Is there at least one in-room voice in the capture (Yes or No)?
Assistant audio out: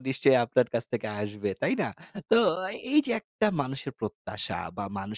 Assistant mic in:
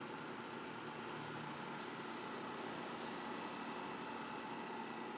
No